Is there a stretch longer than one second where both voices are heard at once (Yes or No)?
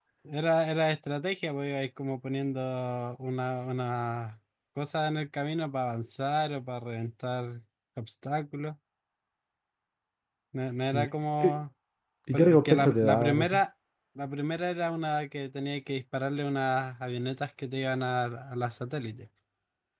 Yes